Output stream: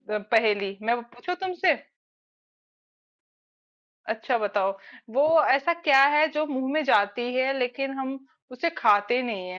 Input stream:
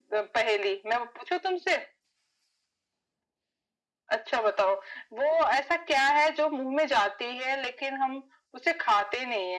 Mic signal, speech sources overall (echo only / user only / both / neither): echo only